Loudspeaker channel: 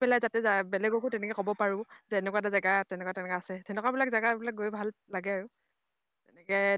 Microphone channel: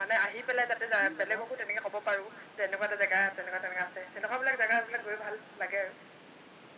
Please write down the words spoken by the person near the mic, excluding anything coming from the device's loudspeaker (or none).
গুৰিজানৰ